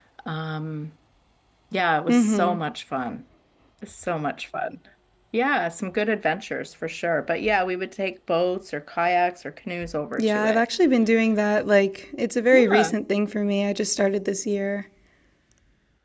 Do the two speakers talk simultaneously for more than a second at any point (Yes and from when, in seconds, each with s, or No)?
No